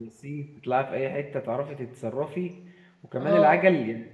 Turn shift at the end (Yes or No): No